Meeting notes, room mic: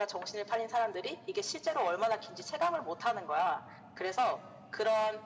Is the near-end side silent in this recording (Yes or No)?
Yes